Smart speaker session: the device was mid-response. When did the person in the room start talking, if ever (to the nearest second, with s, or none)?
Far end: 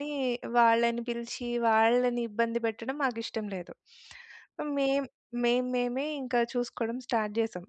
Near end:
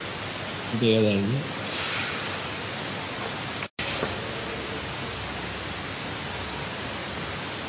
1 s